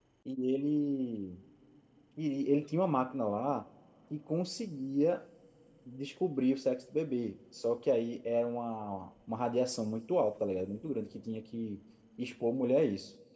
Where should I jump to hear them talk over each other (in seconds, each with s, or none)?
none